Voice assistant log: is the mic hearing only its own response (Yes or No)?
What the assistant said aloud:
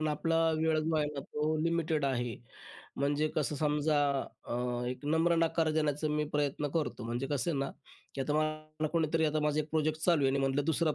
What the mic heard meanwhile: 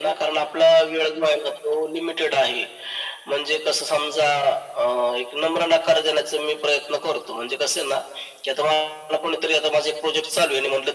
Yes